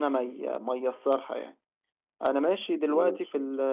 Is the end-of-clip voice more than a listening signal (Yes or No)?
No